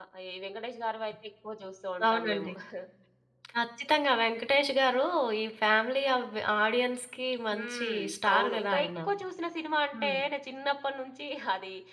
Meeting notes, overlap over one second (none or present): present